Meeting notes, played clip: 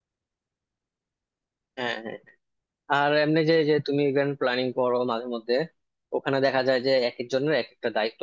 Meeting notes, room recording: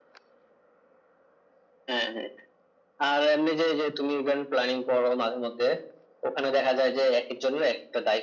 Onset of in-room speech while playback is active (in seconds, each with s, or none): none